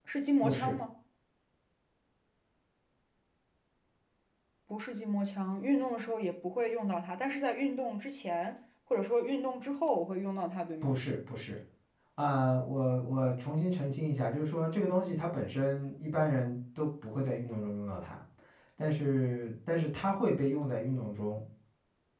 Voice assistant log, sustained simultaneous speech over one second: none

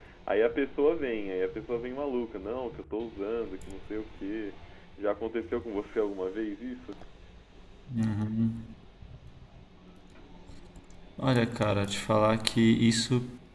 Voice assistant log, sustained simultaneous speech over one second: none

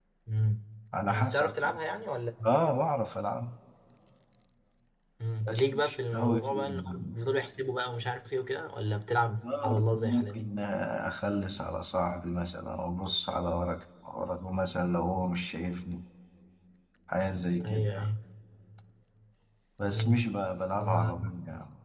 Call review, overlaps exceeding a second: present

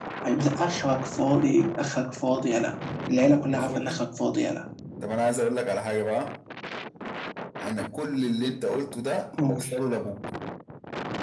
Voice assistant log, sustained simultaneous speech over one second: none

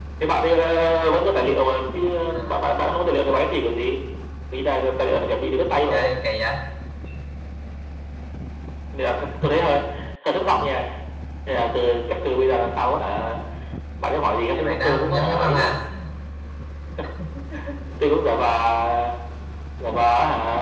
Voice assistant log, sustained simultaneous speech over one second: present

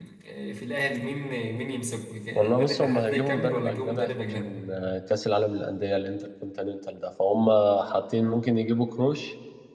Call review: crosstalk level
present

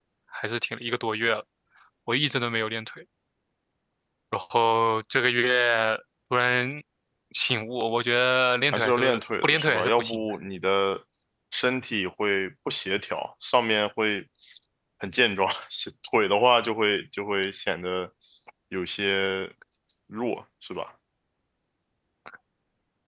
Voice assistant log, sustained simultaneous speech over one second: present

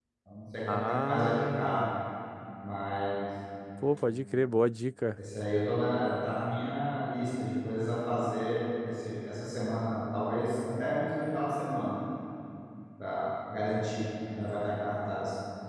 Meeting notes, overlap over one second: present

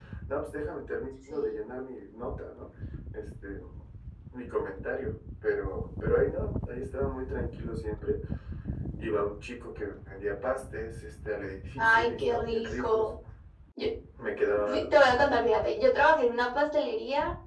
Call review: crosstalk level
present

